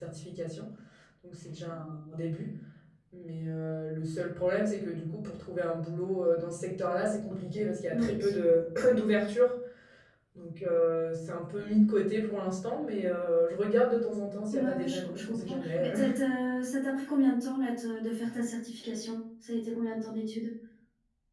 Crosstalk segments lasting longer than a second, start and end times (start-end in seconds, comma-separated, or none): 14.5-16.0